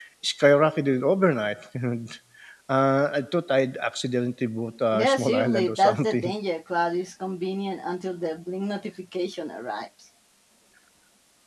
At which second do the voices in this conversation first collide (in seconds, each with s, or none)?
4.9 s